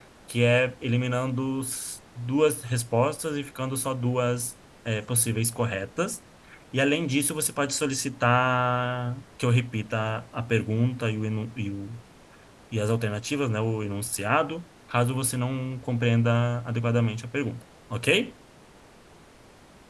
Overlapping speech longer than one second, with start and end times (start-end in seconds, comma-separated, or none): none